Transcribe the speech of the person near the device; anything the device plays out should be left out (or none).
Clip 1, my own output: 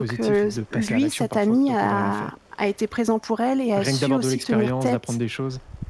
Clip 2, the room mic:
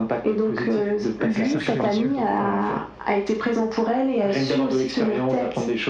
De cercle vicieux. Ouais,